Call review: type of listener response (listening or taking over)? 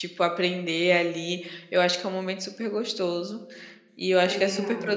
listening